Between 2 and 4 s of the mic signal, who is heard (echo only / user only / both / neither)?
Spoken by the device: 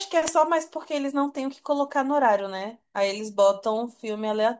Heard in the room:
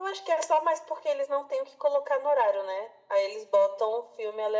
echo only